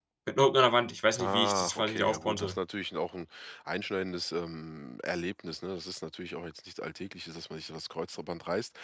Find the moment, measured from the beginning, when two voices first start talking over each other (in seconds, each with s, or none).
1.2 s